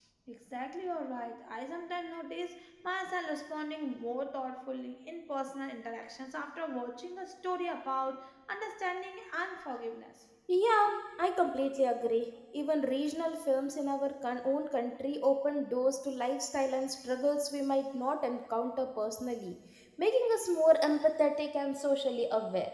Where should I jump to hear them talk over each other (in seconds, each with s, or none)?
none